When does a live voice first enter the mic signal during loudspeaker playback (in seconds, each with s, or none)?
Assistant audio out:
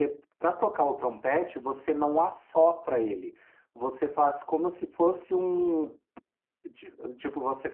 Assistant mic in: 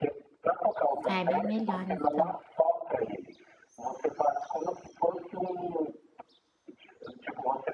1.1 s